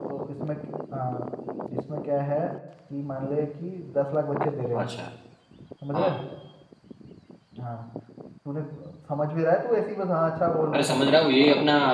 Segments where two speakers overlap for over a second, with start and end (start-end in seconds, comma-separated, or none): none